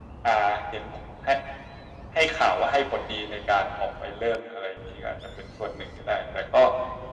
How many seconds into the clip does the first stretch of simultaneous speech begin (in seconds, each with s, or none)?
none